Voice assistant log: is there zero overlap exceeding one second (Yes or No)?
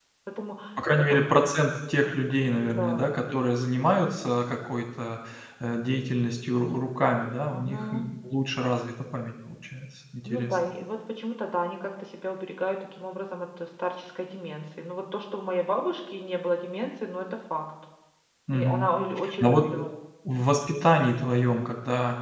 Yes